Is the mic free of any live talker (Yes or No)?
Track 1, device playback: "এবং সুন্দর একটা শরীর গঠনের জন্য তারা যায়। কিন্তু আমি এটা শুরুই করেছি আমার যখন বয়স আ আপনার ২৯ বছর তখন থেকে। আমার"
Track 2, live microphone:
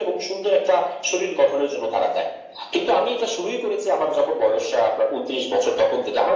Yes